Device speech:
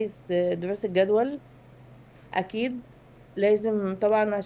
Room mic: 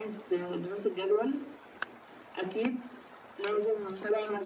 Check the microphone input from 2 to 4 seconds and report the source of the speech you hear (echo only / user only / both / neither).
echo only